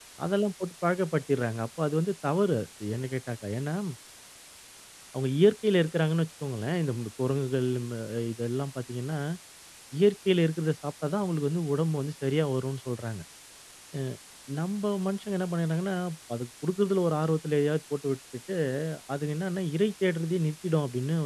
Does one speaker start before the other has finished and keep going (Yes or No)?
No